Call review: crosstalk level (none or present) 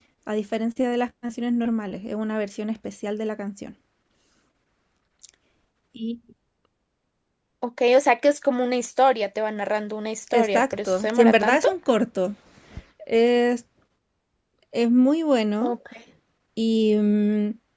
present